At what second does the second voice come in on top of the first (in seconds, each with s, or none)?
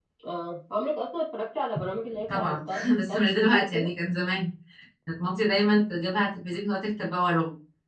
2.3 s